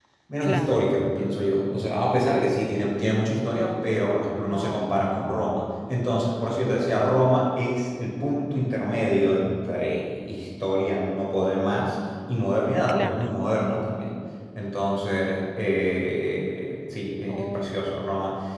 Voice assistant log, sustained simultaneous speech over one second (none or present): none